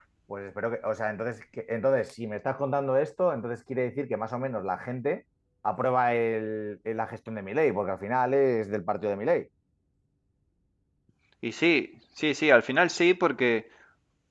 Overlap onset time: none

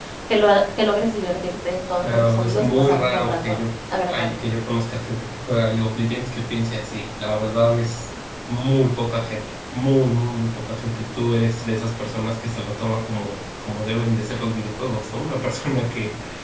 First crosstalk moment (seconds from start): 2.0 s

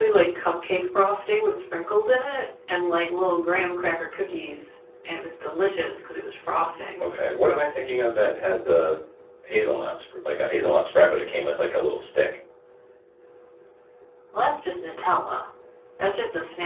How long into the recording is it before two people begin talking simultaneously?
none

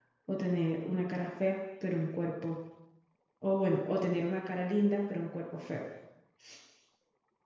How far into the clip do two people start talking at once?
none

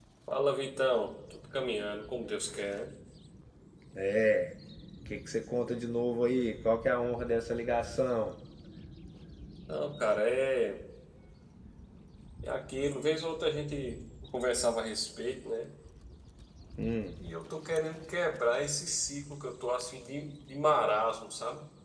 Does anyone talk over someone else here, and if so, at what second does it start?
none

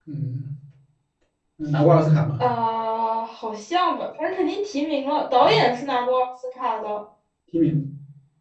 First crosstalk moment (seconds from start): none

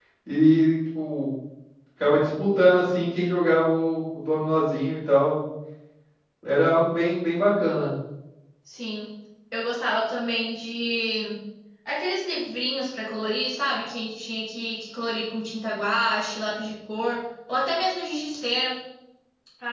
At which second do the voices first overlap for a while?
none

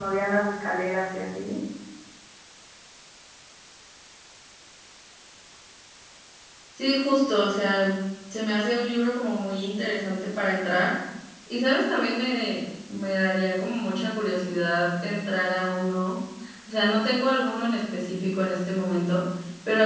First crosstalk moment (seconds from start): none

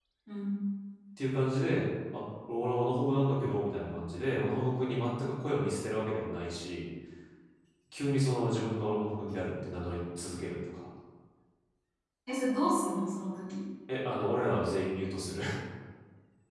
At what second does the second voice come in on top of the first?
none

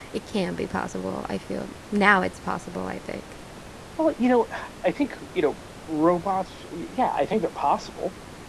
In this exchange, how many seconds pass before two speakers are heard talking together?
none

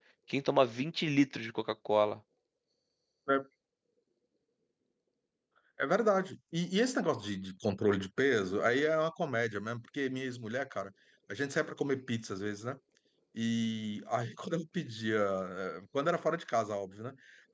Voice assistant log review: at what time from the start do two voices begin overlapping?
none

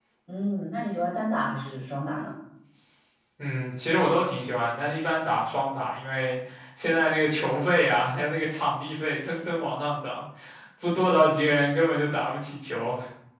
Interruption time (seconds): none

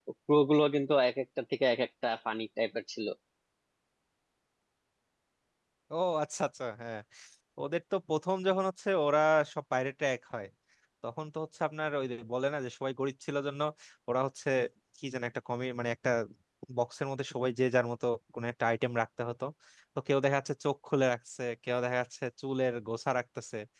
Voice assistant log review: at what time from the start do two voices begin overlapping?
none

